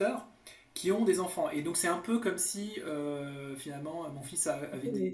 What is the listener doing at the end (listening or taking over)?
taking over